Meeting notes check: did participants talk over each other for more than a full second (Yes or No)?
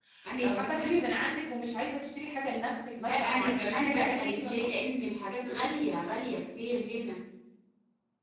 Yes